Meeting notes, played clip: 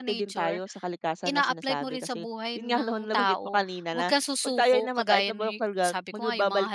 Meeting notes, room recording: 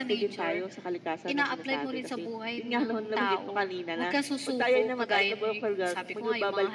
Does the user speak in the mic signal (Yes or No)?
No